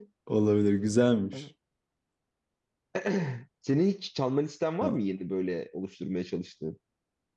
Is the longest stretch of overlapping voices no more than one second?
Yes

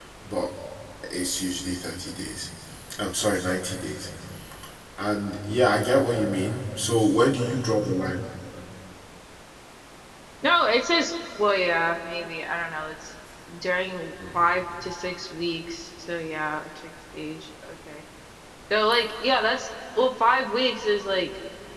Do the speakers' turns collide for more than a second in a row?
No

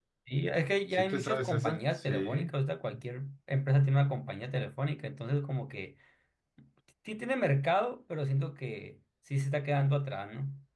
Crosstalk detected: Yes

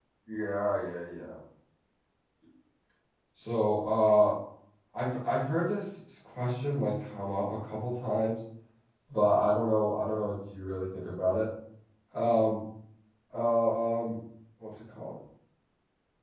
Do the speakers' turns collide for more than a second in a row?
No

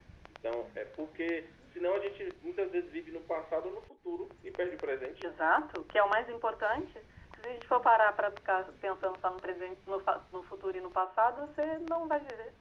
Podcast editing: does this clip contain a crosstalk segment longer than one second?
No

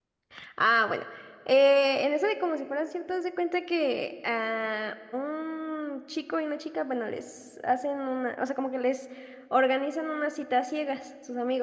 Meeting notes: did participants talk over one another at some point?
No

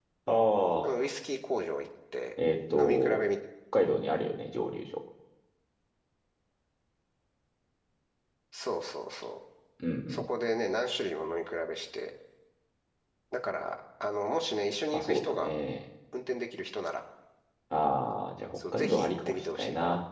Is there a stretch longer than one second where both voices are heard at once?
Yes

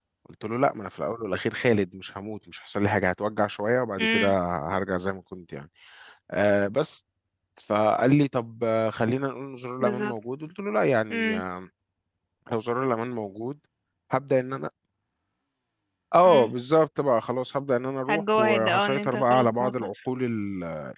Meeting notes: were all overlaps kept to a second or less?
No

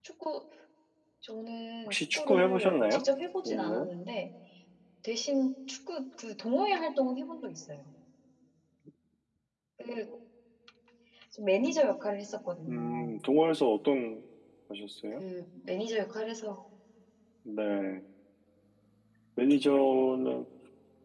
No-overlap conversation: No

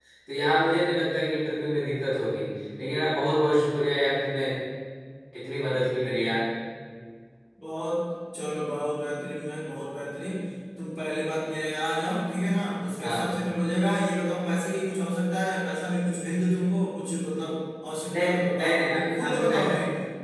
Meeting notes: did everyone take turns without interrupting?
No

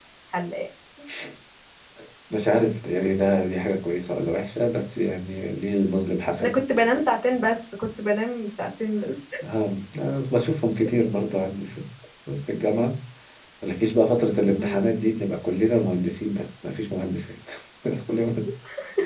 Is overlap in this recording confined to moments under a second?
Yes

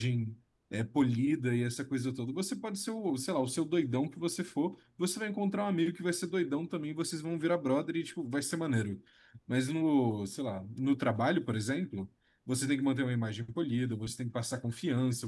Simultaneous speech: No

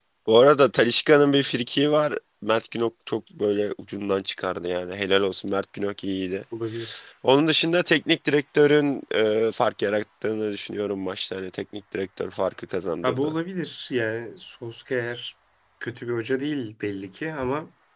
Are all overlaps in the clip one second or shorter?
Yes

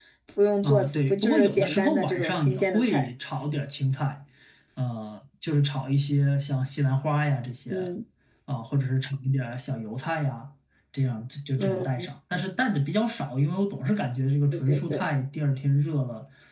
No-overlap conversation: No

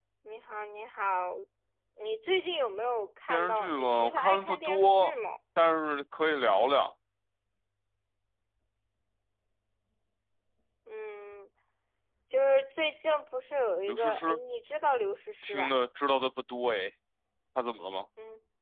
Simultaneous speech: Yes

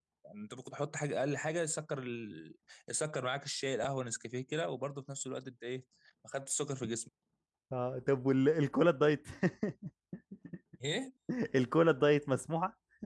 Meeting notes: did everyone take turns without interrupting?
Yes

